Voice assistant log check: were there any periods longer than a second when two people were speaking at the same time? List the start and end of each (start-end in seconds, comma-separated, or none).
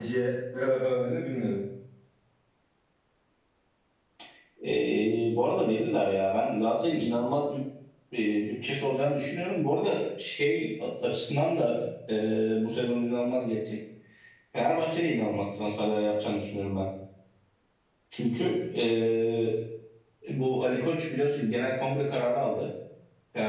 none